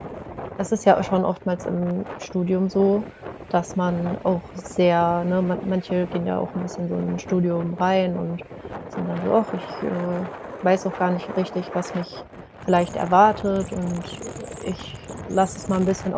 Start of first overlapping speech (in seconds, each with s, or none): none